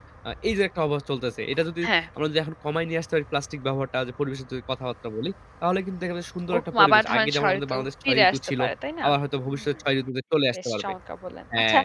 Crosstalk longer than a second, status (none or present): present